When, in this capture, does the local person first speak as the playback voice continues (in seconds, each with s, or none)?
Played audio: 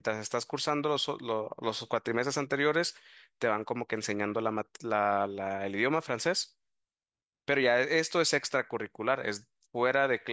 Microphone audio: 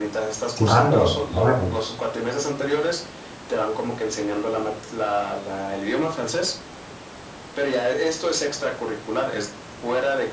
0.5 s